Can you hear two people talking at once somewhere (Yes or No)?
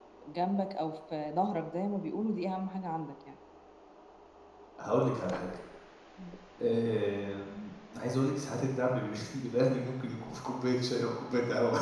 No